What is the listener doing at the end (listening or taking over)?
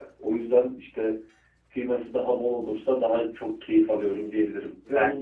listening